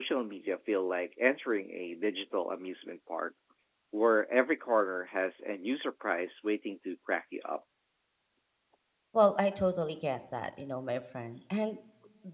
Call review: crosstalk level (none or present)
none